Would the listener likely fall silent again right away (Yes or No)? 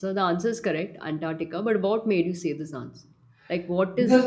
No